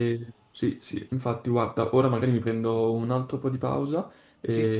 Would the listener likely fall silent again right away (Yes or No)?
Yes